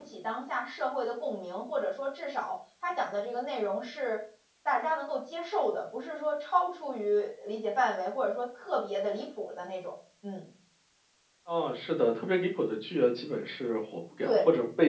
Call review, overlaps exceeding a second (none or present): none